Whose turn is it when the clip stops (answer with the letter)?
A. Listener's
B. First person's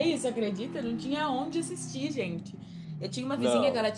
B